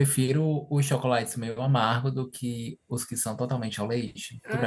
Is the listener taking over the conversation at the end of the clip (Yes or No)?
Yes